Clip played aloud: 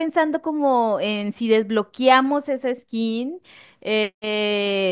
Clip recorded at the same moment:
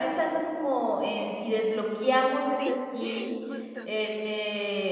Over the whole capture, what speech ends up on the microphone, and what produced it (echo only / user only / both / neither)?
both